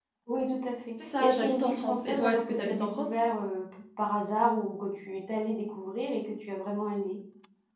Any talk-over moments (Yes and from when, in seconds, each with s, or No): Yes, from 1.2 s